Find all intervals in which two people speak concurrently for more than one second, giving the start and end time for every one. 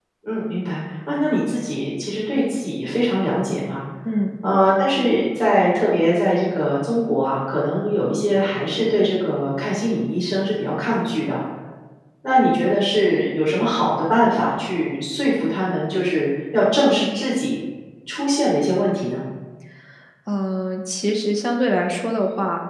none

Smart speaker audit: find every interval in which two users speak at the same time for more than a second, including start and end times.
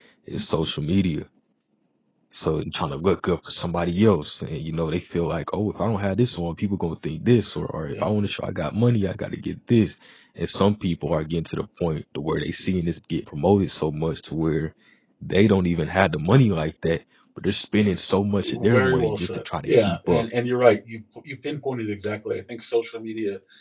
18.4-20.2

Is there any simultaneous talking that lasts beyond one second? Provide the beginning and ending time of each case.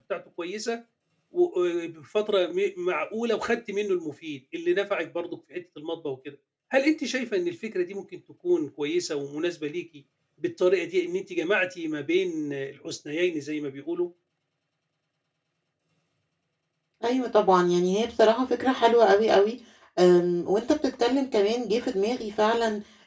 none

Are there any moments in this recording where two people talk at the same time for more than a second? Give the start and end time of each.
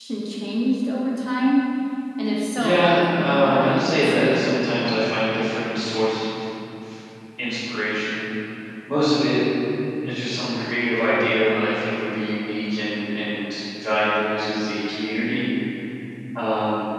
2.5-4.3

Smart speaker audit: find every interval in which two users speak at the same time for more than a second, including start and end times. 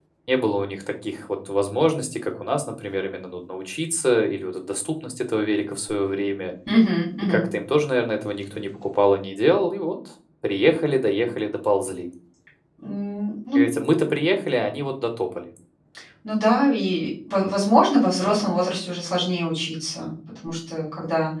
none

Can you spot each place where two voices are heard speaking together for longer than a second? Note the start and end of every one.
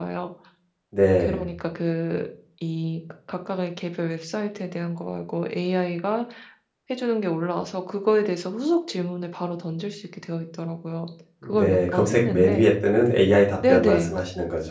11.4-12.7

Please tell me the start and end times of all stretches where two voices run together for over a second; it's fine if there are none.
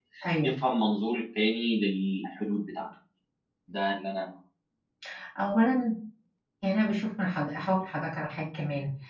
none

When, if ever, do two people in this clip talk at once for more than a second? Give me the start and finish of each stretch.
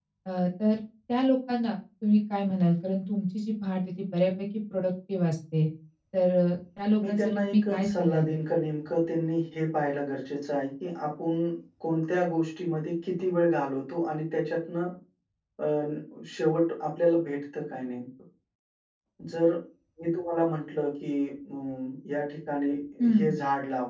7.1-8.4

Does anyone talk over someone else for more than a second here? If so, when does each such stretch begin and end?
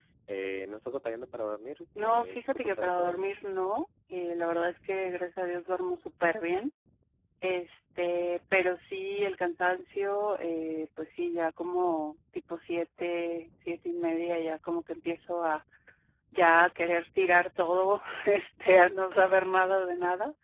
2.0-3.2

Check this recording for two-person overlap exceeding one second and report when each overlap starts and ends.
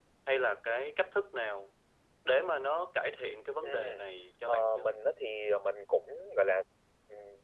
none

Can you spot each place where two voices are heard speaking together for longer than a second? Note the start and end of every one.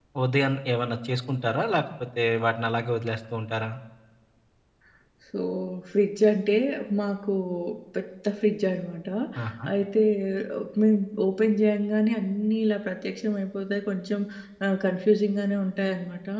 none

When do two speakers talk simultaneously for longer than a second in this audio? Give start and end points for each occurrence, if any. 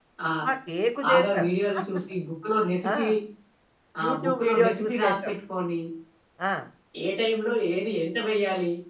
4.0-5.3

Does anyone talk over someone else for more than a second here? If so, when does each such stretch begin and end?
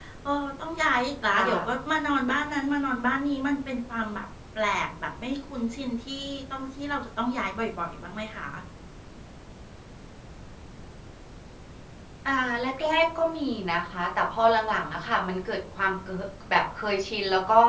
none

